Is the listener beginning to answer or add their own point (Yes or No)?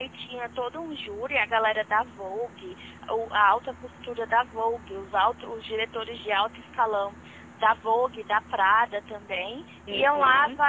No